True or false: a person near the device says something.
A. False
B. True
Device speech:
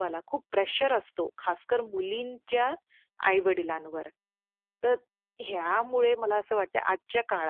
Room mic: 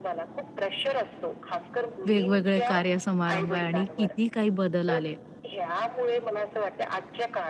B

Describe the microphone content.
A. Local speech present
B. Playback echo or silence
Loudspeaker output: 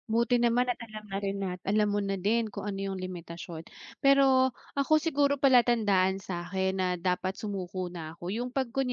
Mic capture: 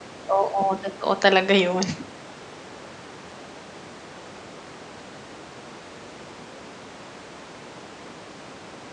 A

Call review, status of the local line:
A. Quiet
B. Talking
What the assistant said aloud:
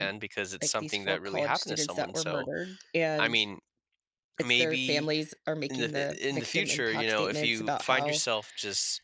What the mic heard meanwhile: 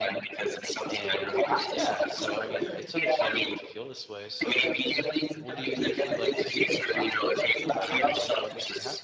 B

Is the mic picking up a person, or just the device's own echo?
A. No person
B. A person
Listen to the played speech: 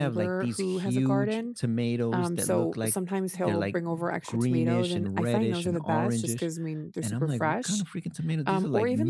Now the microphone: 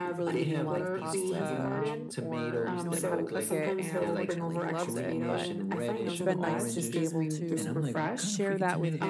B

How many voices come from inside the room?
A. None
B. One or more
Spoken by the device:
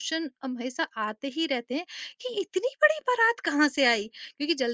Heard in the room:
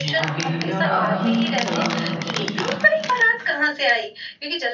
B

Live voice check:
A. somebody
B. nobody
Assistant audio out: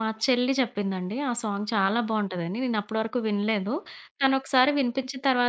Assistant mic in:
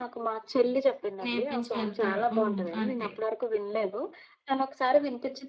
A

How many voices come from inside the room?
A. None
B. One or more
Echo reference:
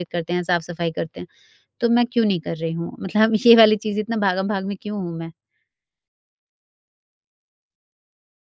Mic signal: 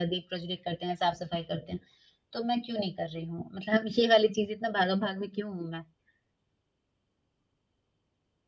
A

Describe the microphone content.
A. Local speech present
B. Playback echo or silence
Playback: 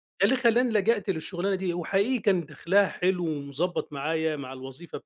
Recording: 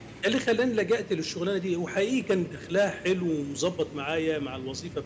B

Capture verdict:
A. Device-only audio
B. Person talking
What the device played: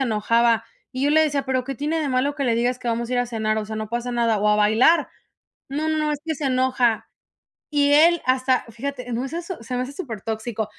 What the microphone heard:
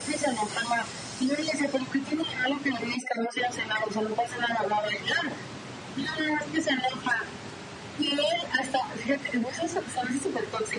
A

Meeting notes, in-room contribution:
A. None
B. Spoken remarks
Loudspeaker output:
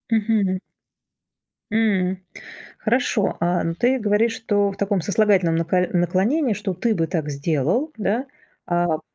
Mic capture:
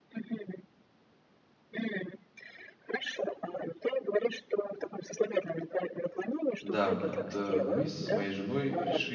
B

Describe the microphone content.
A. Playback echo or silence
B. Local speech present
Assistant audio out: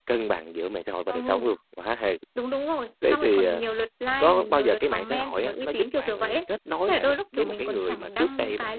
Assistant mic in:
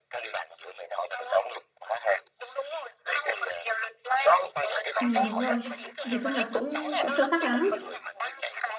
B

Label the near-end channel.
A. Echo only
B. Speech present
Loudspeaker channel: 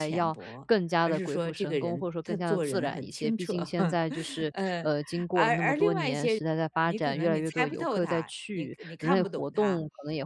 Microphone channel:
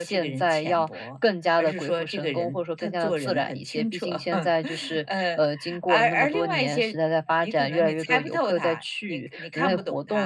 A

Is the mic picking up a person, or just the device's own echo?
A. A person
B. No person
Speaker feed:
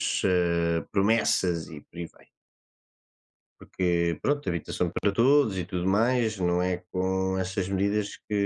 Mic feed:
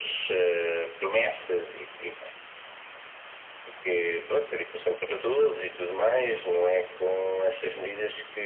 B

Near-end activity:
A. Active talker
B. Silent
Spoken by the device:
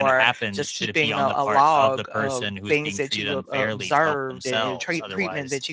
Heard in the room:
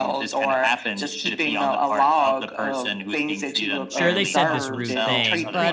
A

